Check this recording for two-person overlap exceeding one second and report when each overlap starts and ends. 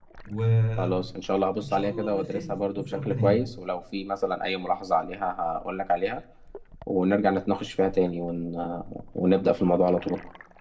1.6-3.5

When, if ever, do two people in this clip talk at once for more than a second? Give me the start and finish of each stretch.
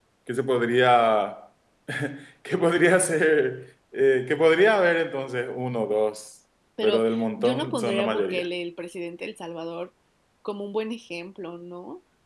6.8-8.5

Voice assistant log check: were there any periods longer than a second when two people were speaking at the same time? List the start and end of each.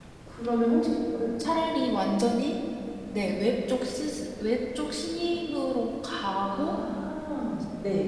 none

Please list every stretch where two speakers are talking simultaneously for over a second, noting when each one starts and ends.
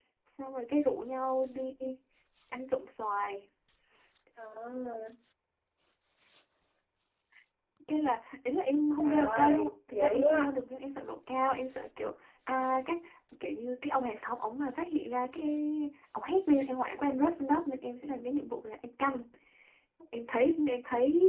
9.0-10.5

